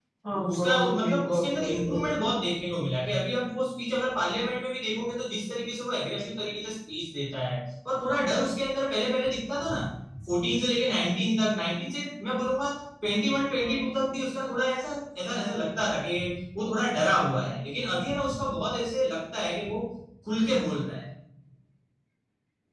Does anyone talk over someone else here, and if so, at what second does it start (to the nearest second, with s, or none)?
1 s